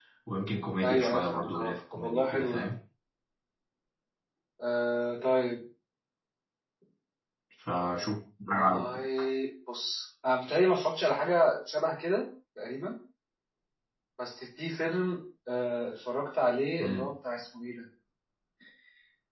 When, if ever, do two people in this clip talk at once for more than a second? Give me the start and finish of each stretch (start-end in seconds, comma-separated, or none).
0.8-2.7